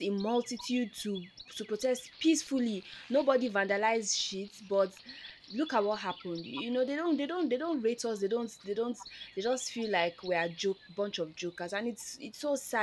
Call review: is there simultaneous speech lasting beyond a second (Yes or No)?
No